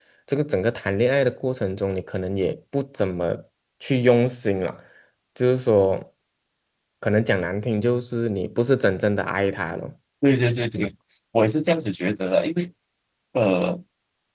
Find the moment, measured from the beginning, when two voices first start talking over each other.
none

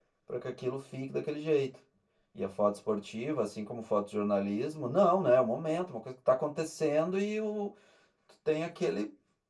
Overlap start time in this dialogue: none

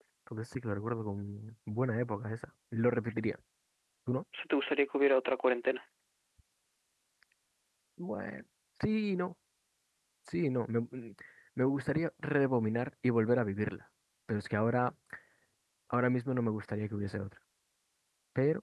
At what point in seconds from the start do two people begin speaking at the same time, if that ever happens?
none

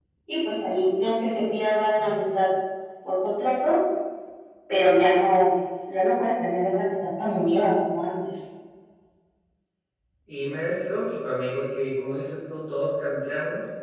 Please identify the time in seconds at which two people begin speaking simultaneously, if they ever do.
none

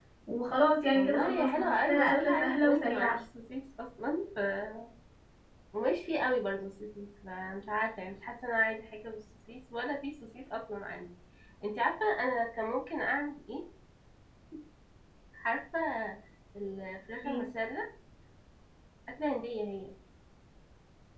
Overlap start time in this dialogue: 0.9 s

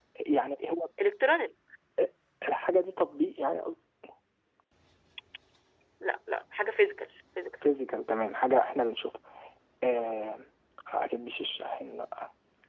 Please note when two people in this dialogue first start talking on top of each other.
none

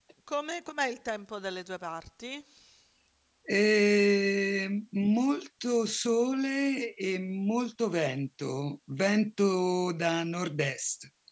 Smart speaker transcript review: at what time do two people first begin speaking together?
none

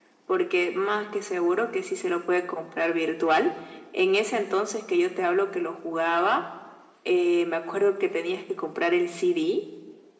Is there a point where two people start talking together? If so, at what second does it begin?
none

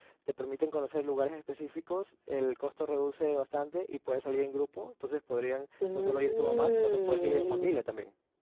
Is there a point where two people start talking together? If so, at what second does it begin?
5.8 s

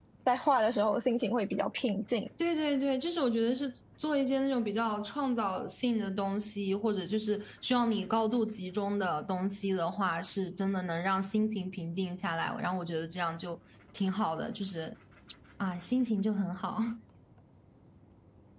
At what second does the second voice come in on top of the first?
none

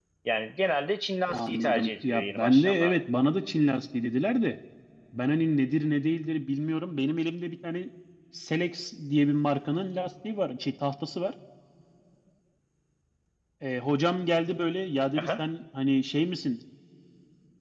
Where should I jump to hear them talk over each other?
1.3 s

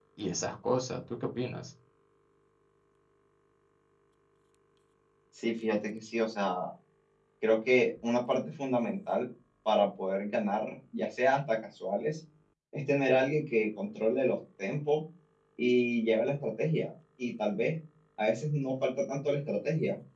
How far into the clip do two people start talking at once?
none

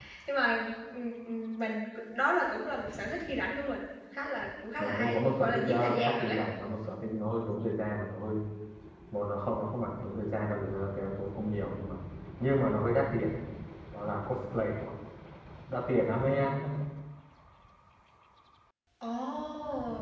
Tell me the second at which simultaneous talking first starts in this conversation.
4.8 s

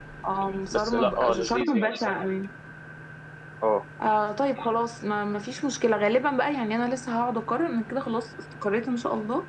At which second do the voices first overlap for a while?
0.7 s

